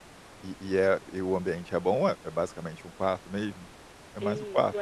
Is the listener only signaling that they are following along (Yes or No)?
No